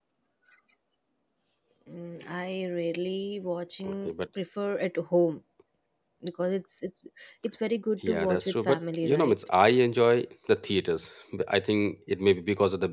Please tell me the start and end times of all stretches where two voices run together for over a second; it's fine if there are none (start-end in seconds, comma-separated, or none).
8.1-9.4